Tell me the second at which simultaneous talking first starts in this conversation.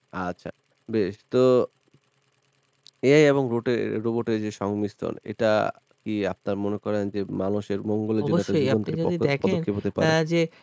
8 s

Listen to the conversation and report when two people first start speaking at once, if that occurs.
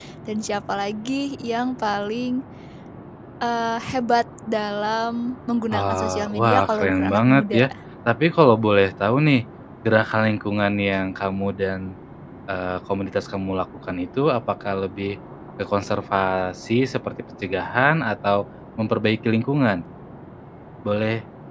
6 s

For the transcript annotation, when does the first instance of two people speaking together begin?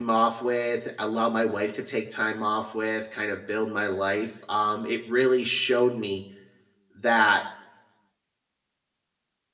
none

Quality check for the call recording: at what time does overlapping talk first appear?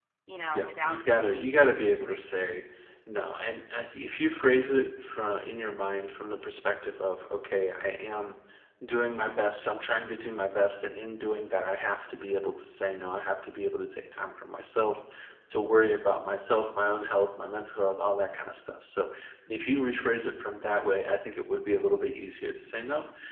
1 s

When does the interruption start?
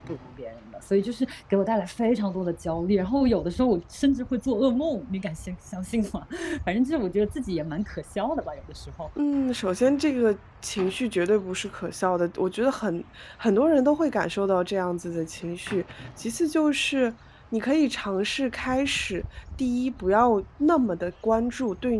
none

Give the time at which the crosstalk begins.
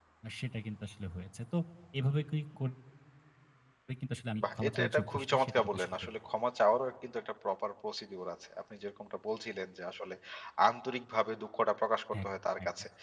5 s

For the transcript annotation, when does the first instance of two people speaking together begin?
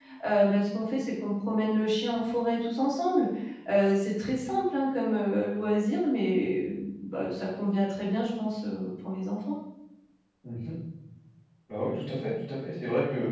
none

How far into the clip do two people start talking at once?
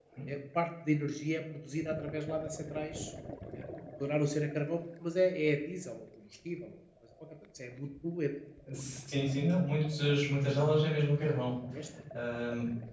none

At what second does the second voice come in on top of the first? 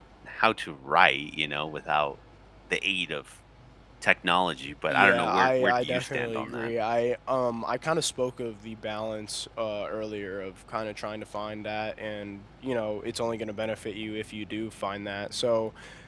5 s

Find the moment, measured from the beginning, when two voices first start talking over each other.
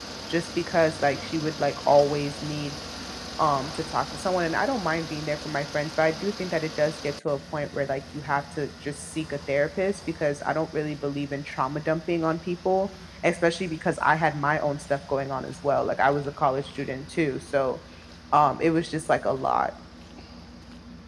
none

